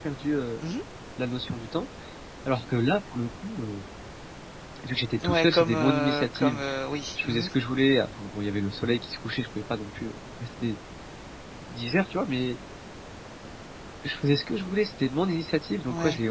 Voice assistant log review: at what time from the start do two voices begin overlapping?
5.2 s

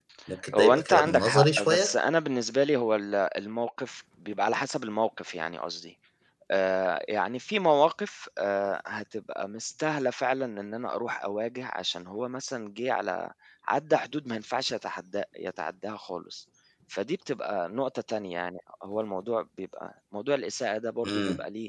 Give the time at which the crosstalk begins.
0.6 s

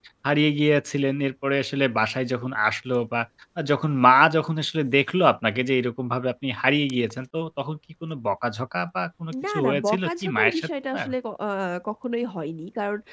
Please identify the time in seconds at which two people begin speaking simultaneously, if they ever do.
9.3 s

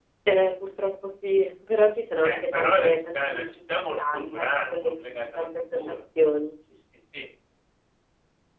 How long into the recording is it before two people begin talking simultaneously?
2.2 s

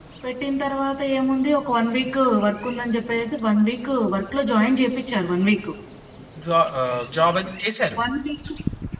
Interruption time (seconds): none

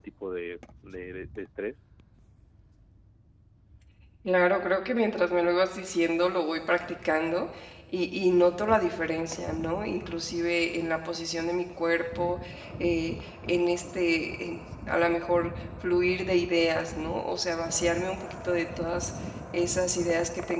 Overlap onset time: none

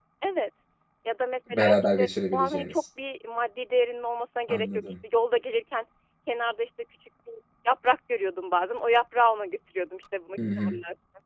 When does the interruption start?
1.5 s

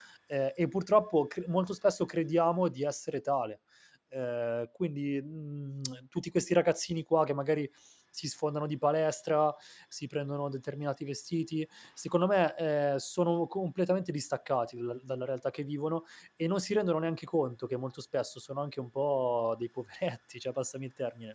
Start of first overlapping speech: none

